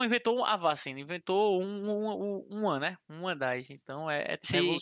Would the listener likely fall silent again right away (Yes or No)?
No